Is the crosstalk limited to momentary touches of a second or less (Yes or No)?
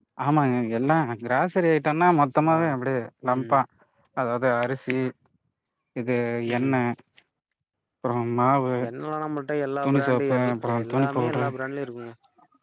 No